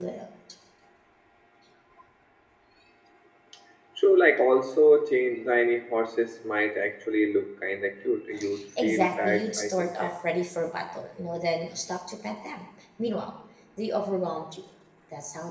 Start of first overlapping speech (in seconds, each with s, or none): 8.8 s